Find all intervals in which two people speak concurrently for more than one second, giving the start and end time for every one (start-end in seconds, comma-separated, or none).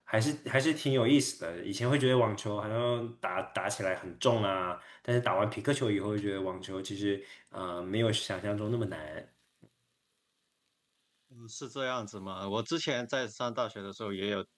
none